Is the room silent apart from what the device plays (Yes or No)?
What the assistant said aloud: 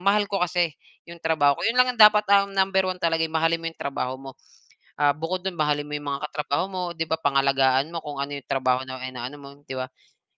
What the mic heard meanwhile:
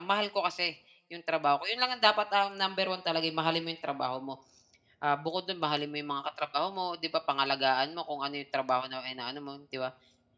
Yes